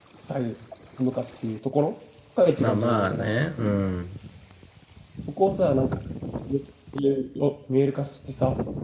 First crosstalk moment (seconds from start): 2.6 s

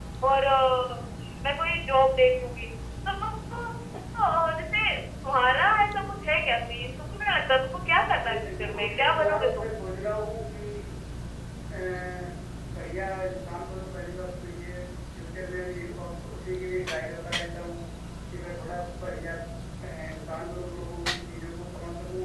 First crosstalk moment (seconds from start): 8.2 s

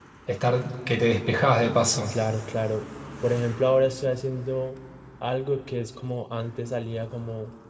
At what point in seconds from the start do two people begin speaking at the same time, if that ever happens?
none

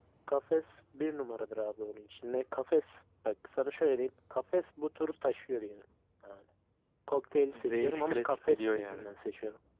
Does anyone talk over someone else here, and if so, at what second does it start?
7.5 s

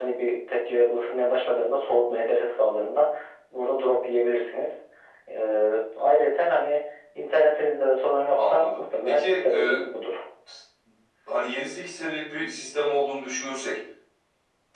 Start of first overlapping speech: 8.4 s

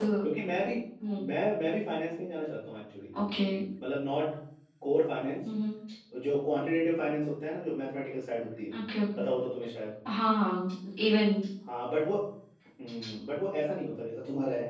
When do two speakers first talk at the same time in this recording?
none

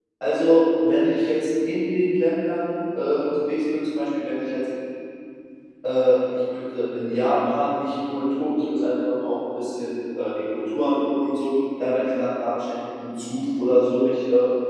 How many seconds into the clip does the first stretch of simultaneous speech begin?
none

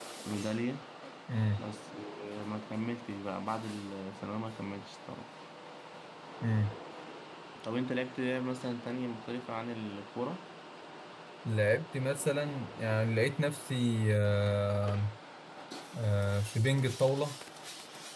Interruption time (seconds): none

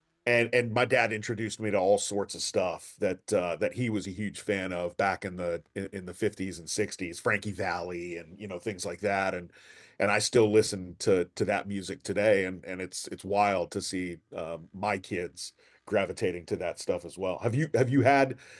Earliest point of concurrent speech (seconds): none

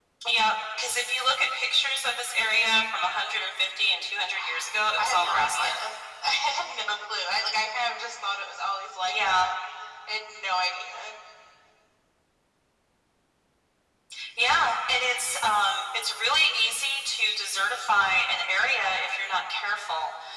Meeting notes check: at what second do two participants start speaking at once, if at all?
4.3 s

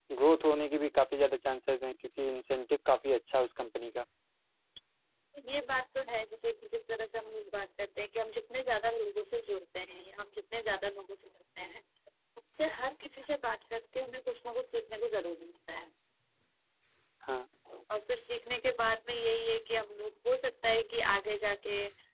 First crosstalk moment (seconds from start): none

